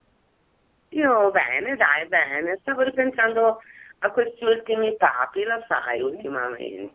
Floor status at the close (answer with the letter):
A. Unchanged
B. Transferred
B